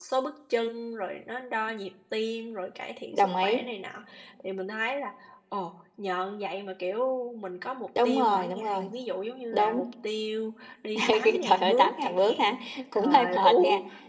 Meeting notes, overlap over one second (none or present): present